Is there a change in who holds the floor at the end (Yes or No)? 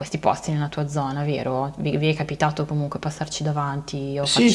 Yes